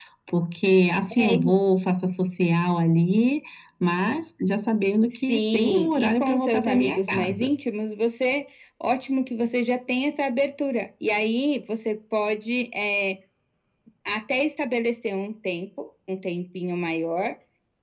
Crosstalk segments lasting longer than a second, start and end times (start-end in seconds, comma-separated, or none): 5.3-7.5